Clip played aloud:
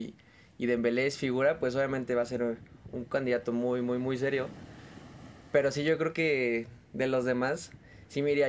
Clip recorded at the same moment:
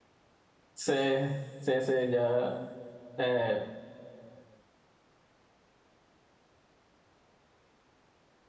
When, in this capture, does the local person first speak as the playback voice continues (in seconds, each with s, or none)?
0.7 s